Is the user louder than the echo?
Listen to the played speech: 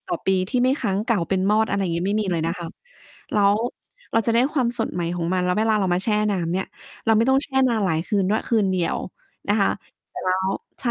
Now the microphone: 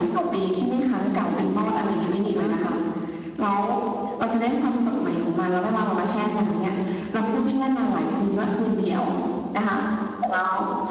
No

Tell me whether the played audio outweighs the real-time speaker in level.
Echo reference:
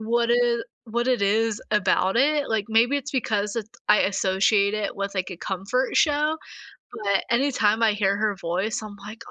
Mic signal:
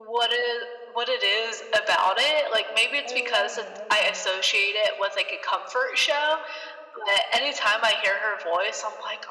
Yes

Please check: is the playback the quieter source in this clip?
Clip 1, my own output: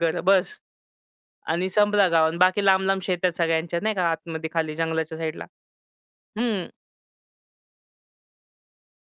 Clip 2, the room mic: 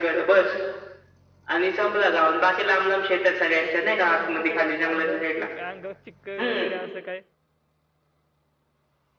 No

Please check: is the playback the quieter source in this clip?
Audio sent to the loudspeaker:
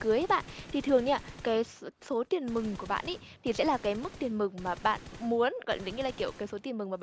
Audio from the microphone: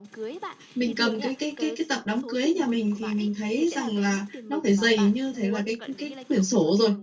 Yes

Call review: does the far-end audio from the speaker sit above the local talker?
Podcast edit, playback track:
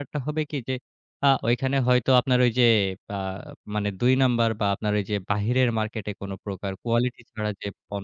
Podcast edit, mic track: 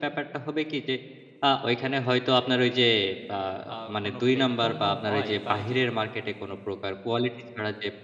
Yes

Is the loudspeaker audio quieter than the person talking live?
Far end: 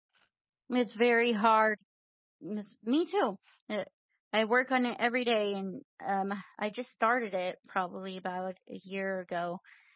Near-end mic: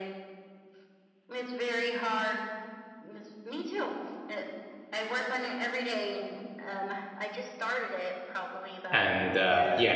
Yes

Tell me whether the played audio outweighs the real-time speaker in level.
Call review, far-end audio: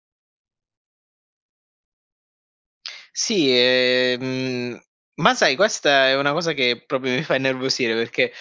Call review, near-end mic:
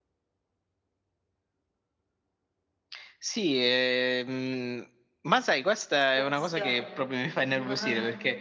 Yes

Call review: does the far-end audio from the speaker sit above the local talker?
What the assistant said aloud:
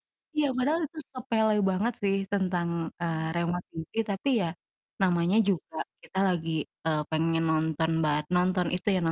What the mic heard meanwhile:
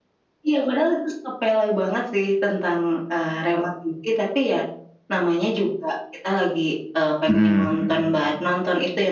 No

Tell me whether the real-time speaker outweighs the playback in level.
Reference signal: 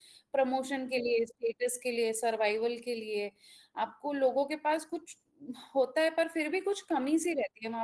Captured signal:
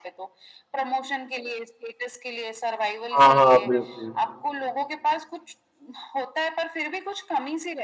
Yes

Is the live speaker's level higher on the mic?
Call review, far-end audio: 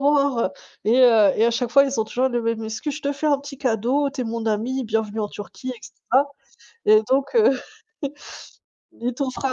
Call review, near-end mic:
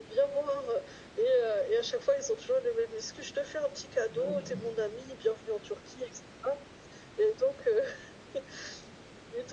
No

